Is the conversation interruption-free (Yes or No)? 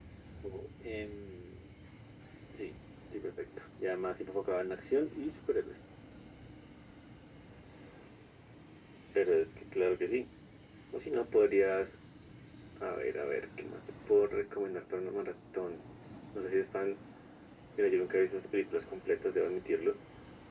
Yes